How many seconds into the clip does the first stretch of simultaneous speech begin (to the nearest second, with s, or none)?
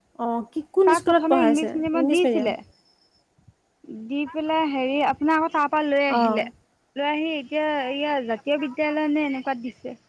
1 s